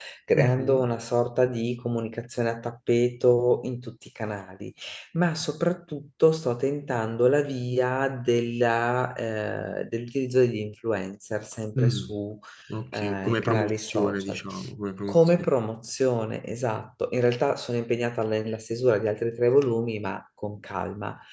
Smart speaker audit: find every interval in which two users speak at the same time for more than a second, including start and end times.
12.9-14.4

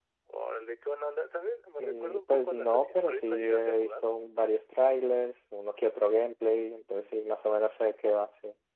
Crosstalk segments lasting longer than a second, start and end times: 1.8-4.0

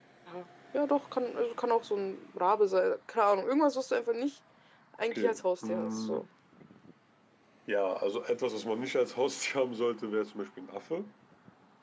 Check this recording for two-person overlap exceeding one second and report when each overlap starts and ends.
5.0-6.3

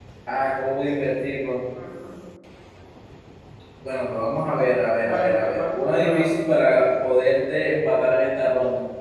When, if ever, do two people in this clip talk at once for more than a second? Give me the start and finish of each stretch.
5.0-6.3

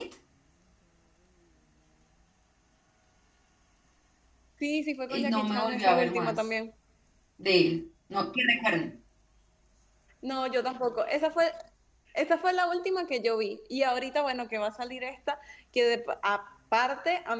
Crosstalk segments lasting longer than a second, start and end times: 5.1-6.3

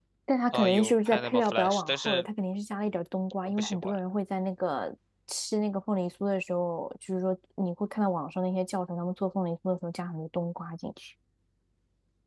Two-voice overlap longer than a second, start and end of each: 0.5-2.3

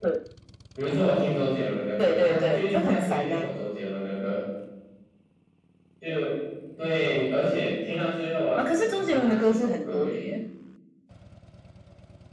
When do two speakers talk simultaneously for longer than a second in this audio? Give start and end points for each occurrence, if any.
2.0-3.5, 8.6-10.3

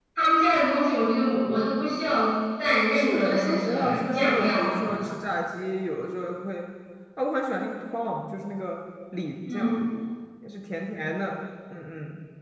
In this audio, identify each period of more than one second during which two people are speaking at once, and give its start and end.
2.9-5.1

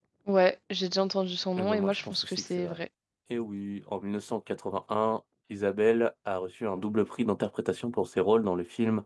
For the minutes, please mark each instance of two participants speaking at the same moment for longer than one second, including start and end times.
1.6-2.8

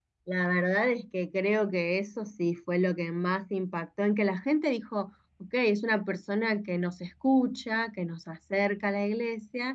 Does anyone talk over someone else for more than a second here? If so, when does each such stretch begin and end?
none

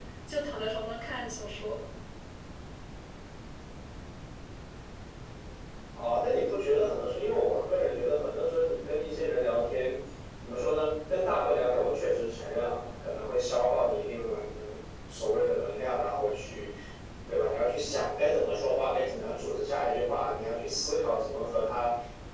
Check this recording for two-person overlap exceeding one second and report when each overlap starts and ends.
none

